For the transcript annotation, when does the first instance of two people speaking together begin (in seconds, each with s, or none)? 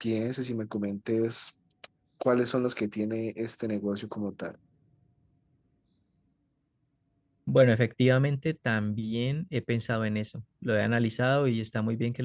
none